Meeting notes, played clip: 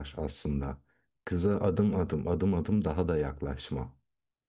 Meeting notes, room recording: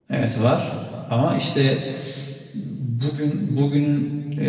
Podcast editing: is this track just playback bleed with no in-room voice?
No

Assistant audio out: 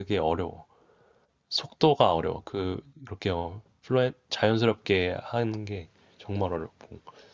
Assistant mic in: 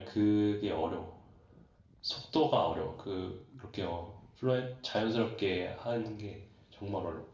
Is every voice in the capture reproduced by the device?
Yes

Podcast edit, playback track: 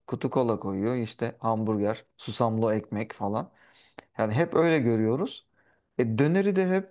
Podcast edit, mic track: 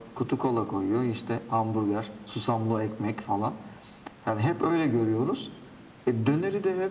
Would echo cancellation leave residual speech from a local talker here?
No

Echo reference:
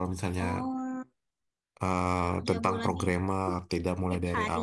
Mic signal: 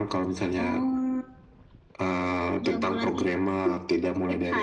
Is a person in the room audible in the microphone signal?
No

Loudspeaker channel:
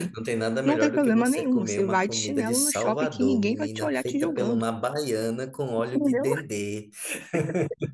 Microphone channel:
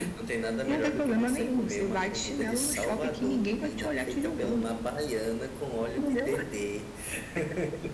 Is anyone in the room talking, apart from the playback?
No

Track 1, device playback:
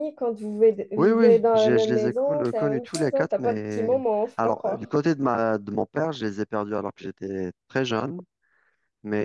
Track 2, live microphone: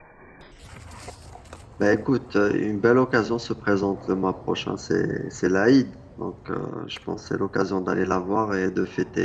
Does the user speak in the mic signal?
Yes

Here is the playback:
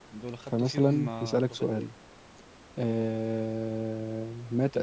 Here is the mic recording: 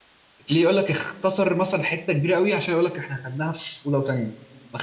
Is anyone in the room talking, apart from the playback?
Yes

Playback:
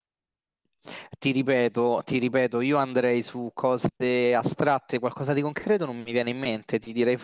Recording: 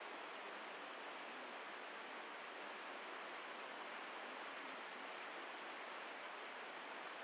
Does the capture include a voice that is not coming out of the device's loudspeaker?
No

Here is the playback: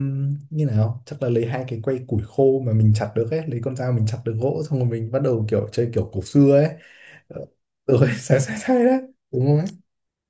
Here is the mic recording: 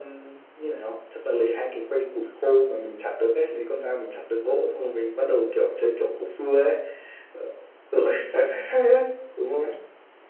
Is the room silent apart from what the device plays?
Yes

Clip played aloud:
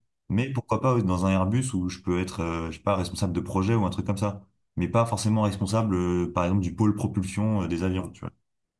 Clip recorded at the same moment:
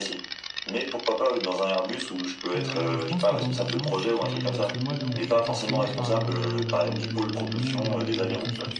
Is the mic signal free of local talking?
No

